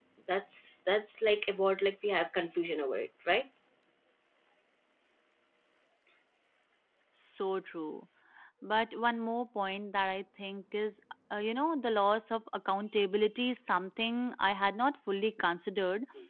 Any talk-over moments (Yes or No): No